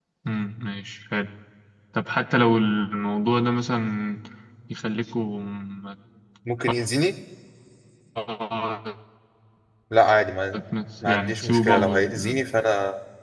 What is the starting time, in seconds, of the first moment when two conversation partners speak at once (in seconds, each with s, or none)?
11.0 s